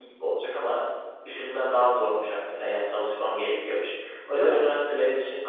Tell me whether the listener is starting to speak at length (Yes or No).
No